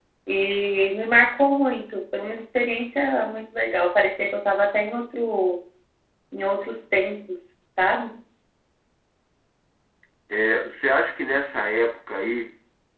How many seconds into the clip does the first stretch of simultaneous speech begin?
none

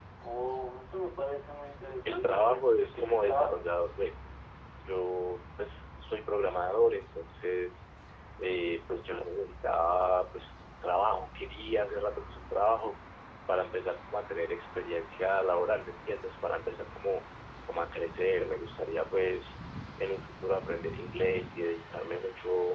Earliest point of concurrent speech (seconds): 2.0 s

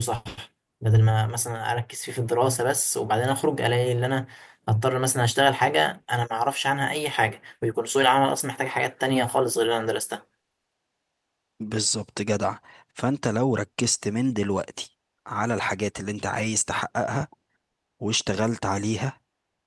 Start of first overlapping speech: none

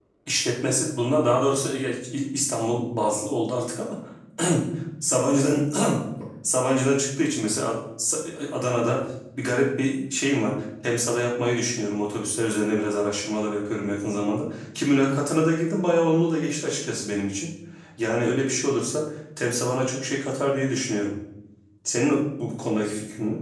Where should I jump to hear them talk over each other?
none

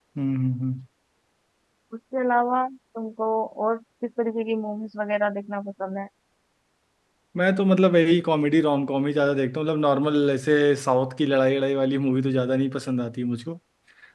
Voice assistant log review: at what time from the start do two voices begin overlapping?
none

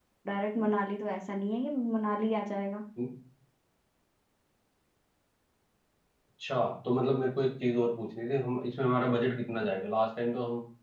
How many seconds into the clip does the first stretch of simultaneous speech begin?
none

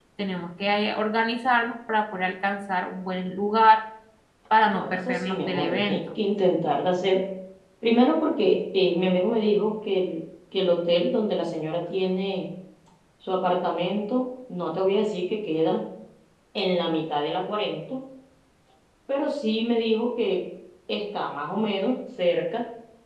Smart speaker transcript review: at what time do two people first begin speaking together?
4.7 s

